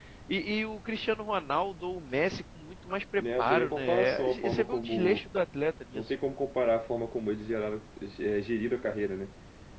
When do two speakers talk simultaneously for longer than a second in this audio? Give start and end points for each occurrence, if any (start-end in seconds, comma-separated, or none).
3.2-5.2